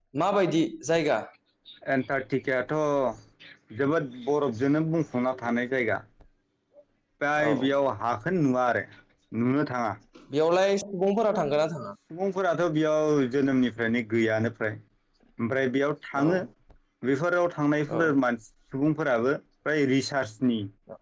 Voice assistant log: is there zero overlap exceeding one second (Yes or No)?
Yes